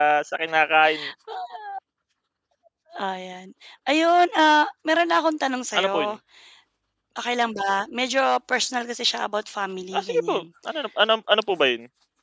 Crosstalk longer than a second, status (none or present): none